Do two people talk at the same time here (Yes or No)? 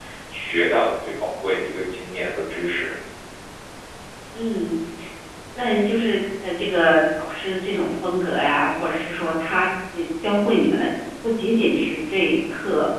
No